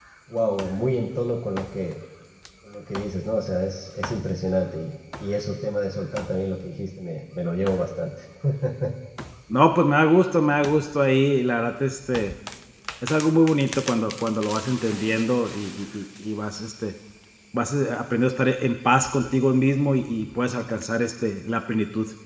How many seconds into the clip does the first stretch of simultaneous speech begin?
none

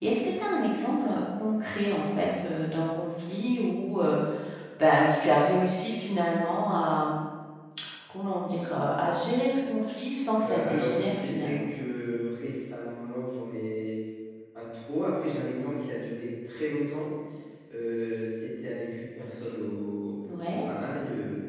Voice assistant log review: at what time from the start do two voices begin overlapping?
10 s

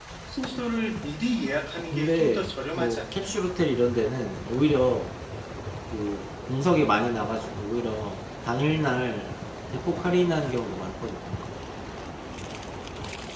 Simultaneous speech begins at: 2 s

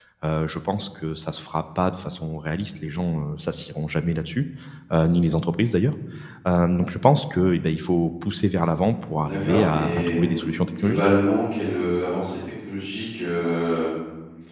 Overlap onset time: 9 s

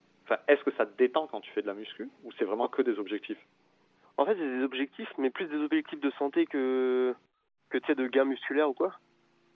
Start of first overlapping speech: none

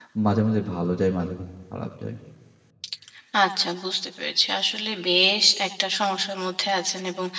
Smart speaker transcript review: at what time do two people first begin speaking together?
none

